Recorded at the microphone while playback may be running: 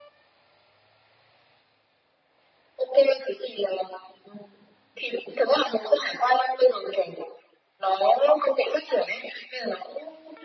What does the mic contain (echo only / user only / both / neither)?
echo only